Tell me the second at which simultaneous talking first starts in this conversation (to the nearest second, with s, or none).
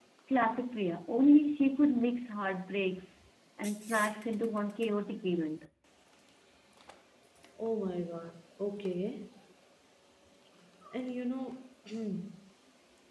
none